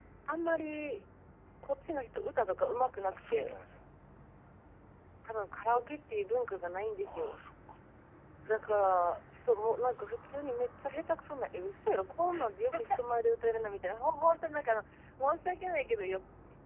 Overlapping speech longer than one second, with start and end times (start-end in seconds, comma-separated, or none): none